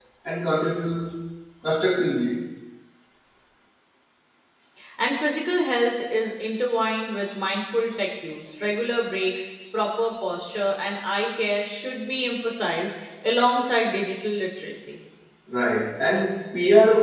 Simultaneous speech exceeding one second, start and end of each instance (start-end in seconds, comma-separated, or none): none